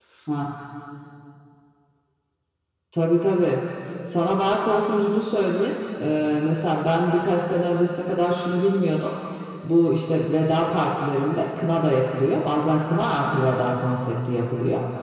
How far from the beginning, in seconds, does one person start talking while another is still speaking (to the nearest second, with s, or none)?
none